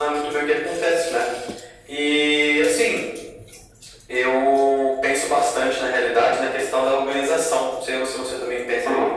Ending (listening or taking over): taking over